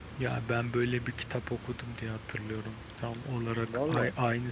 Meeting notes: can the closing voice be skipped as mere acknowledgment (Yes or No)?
Yes